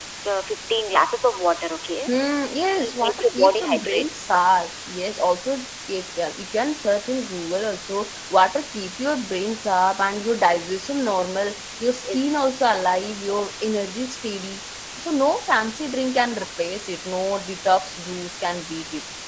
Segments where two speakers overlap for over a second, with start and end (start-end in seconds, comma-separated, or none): 2.8-4.0